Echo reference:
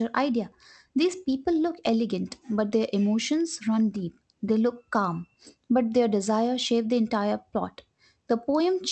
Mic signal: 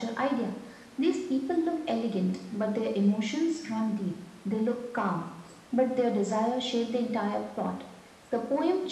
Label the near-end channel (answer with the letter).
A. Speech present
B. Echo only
B